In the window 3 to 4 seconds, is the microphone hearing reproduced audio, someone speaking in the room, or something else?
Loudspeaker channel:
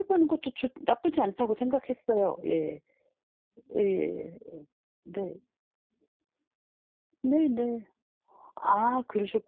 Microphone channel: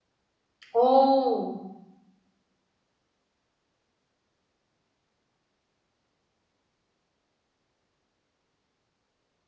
neither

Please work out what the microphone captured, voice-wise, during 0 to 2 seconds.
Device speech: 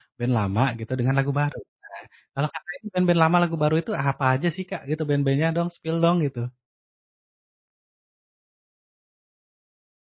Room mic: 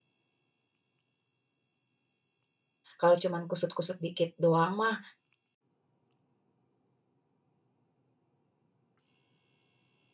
neither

